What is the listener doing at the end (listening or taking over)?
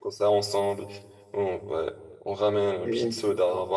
listening